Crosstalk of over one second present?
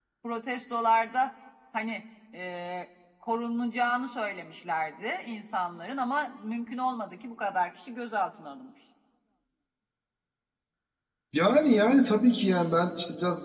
No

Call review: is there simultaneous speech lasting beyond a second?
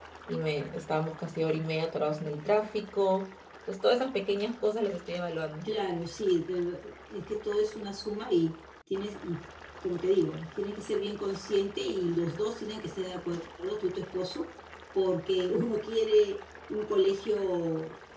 No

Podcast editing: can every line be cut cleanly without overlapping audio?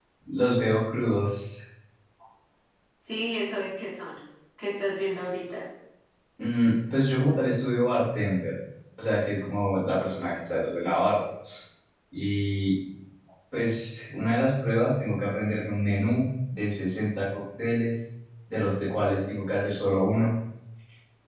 Yes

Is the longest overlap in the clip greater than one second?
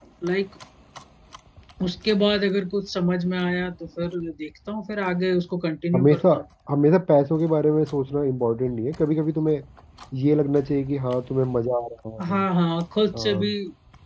No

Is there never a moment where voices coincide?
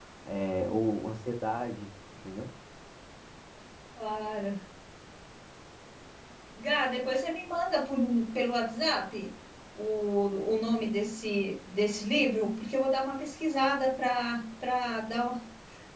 Yes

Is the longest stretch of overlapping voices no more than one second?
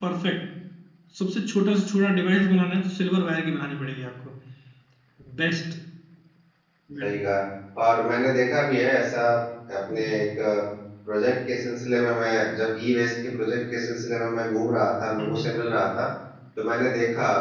Yes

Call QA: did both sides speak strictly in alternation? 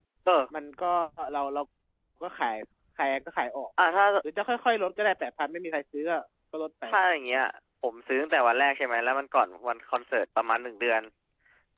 Yes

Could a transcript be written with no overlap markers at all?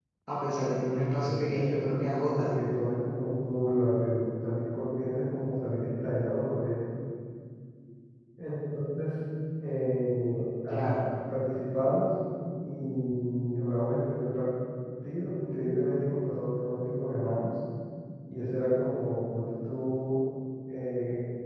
No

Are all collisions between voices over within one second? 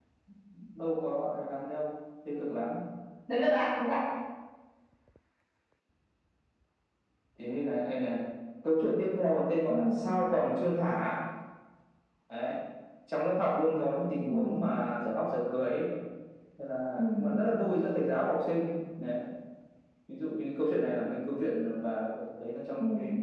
Yes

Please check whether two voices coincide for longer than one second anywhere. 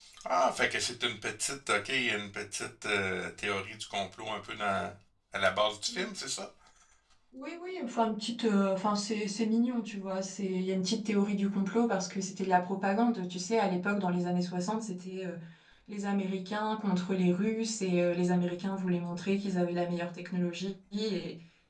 No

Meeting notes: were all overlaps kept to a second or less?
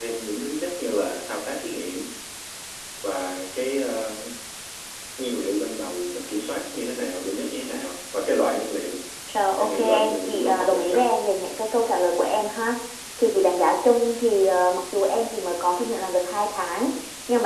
No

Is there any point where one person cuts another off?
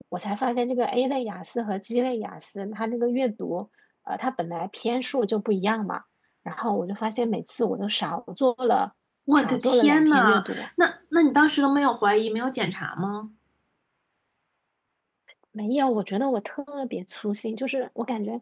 Yes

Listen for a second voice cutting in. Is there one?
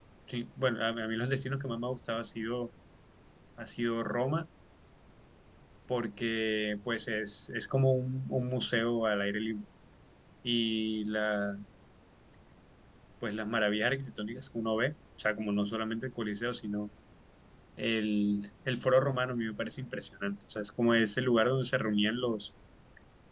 No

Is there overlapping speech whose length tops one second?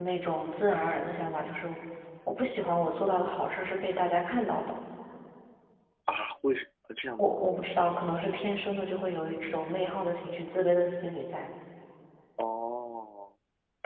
No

